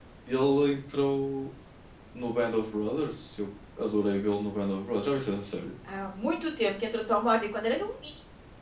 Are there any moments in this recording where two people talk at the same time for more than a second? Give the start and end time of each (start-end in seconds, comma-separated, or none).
none